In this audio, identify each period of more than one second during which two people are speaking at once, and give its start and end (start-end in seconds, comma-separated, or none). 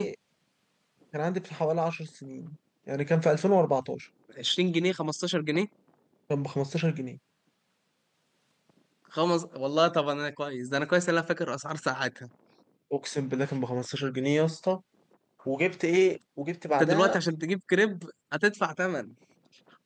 none